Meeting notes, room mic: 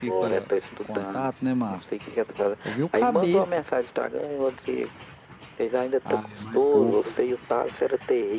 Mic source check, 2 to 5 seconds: both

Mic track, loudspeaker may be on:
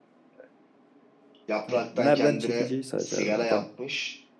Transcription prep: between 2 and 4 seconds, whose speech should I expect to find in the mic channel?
both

